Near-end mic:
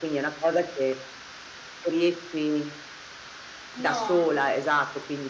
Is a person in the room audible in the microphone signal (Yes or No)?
Yes